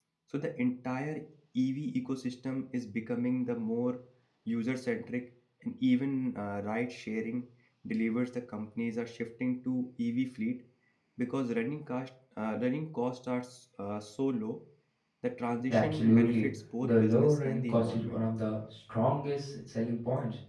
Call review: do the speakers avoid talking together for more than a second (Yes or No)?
No